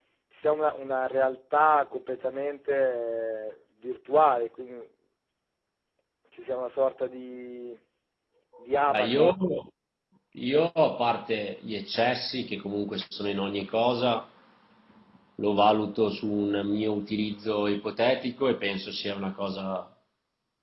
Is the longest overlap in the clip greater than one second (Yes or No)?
No